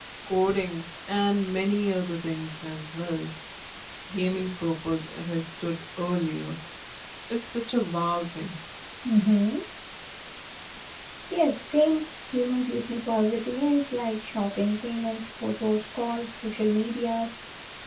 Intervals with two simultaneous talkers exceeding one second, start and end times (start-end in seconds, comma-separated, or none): none